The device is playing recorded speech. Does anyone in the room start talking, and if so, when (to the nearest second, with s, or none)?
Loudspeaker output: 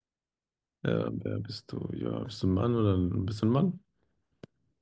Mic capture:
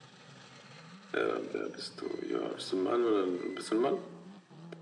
none